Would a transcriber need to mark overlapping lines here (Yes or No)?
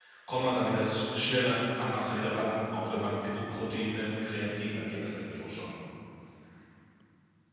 No